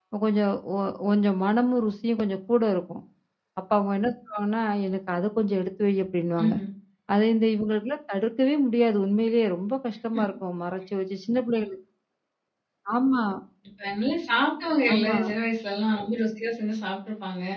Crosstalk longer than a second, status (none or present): none